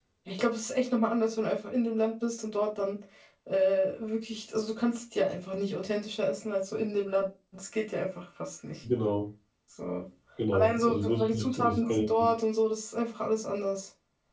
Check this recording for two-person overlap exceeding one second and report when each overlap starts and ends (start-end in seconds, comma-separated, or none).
10.5-12.3